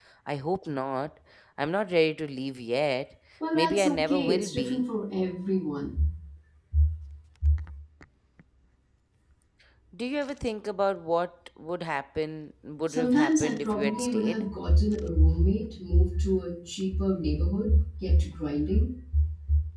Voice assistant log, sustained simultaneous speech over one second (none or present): present